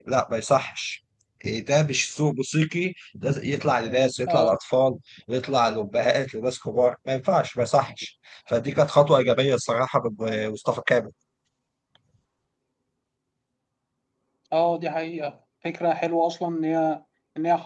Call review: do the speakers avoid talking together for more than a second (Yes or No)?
Yes